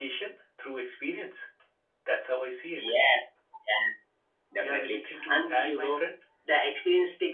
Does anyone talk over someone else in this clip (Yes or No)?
Yes